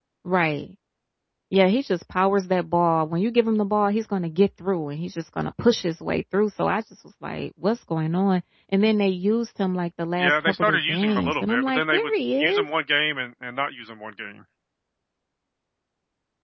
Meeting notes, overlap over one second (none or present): present